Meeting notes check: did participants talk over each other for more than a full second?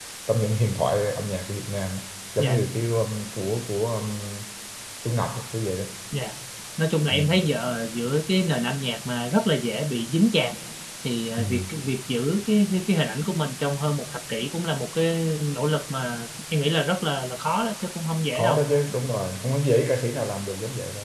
No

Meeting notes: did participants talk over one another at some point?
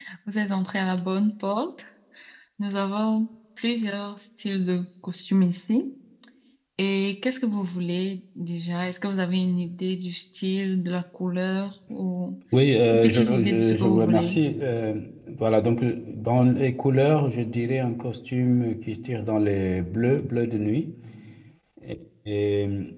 Yes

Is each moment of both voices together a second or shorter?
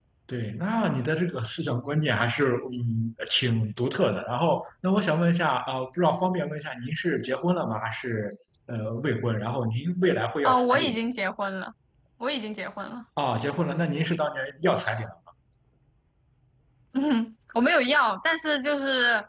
Yes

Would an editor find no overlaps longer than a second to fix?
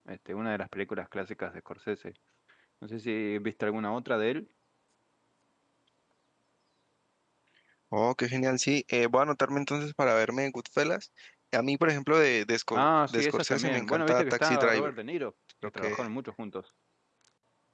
No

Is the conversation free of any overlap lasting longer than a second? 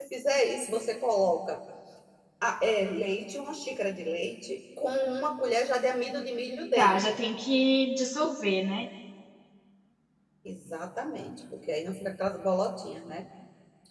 Yes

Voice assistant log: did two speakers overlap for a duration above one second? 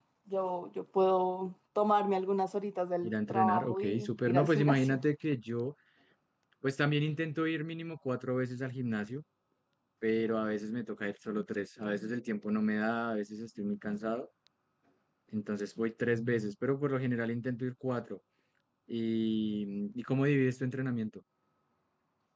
Yes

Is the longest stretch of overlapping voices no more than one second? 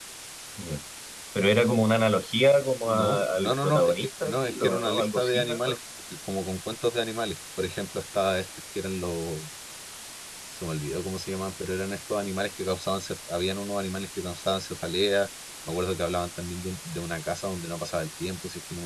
No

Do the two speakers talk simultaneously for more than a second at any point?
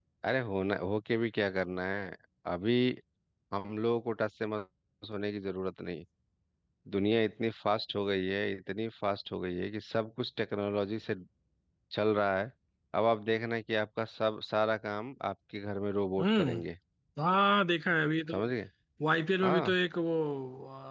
No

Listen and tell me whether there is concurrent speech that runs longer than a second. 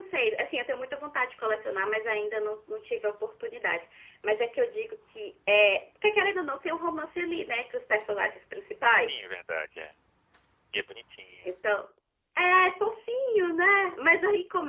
No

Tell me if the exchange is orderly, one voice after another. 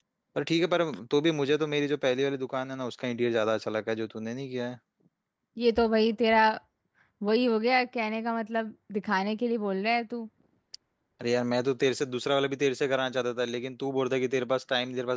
Yes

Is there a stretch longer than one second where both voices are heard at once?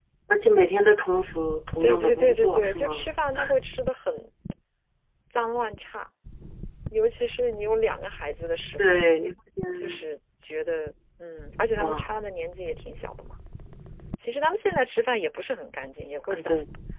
Yes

